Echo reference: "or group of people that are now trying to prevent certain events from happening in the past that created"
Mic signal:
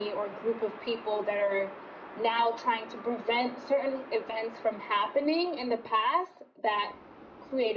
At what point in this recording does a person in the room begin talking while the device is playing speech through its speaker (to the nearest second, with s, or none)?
none